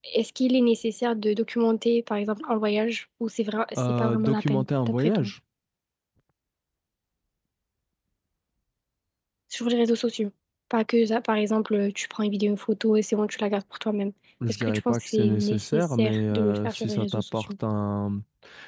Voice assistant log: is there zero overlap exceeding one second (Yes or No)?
No